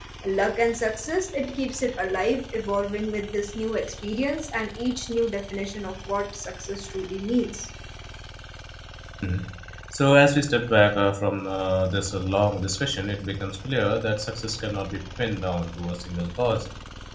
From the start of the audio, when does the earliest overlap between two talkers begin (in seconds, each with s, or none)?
none